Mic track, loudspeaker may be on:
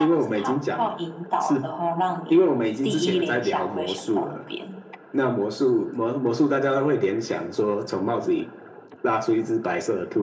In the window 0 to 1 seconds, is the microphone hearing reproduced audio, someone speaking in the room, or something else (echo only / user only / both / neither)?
echo only